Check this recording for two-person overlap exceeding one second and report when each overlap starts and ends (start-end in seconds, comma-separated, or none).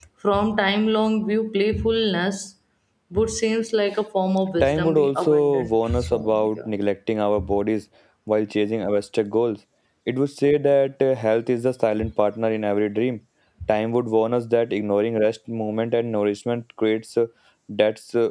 4.6-6.6